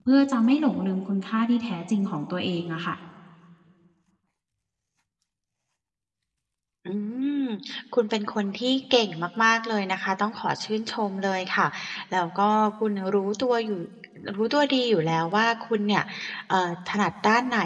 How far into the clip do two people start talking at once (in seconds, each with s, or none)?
none